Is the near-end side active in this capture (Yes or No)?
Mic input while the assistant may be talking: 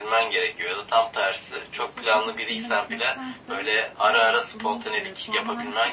Yes